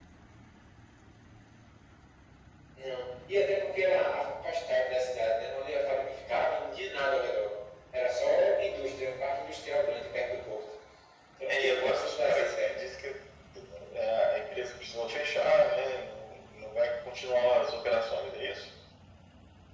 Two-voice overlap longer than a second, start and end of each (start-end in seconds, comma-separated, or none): 11.5-12.7